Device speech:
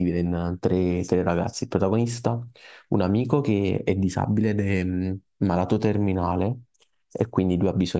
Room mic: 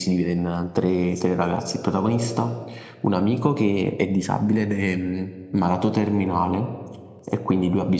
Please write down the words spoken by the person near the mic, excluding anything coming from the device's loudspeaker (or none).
none